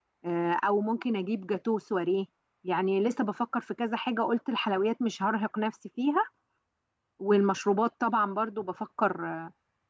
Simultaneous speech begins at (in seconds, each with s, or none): none